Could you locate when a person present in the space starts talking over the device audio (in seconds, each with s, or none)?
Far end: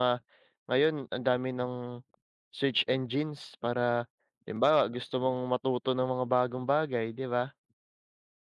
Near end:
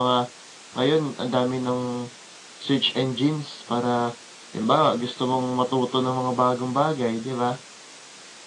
none